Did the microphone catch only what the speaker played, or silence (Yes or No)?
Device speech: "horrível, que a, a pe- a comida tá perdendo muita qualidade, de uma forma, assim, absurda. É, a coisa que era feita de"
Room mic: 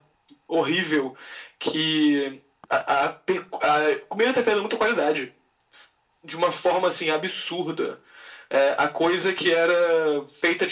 Yes